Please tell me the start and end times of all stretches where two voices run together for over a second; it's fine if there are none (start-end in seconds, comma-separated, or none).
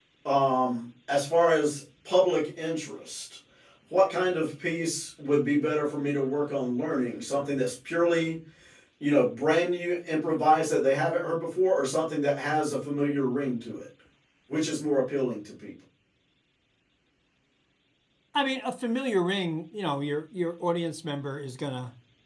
none